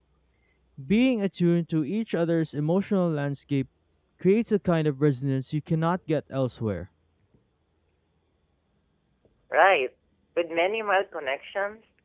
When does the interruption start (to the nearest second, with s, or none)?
none